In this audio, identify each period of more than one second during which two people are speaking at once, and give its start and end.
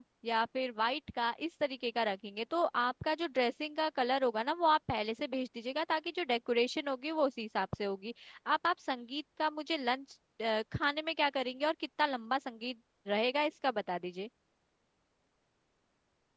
none

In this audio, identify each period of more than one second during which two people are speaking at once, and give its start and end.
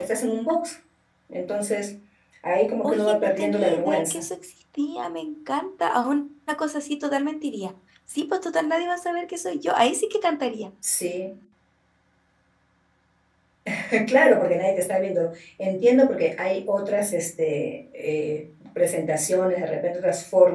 2.8-4.2

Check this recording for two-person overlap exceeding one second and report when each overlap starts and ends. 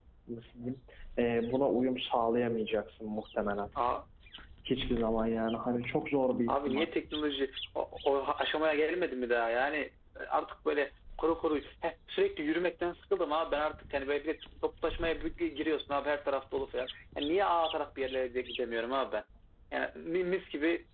none

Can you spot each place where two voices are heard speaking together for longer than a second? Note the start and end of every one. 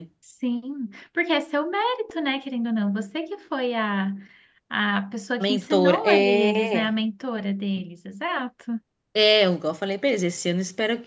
5.4-6.9

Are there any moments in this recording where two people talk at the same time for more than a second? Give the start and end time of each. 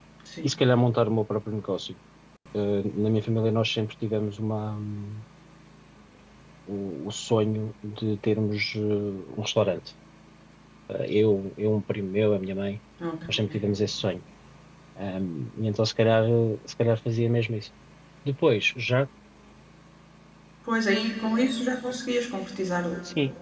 none

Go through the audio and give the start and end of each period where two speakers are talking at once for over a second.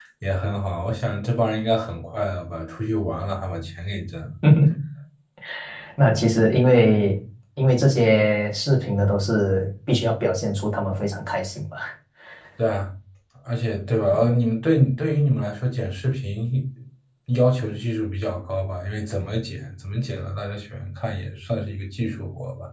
none

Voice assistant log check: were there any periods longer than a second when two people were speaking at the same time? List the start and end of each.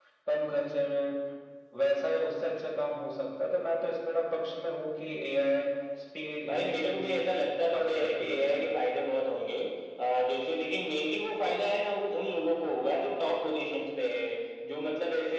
6.5-8.7

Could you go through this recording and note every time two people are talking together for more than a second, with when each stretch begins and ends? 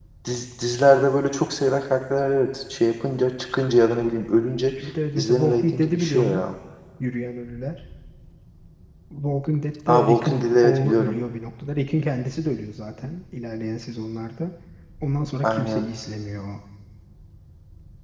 5.2-6.4, 9.9-11.2

